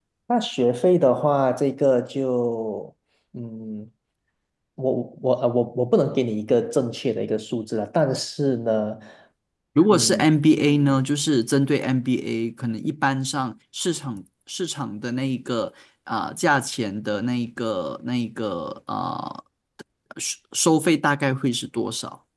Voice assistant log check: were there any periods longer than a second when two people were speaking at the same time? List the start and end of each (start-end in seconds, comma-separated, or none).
none